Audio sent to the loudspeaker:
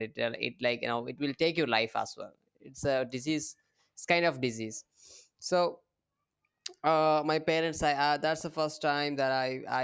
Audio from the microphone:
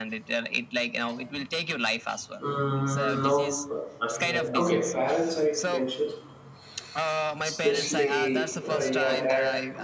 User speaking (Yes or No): Yes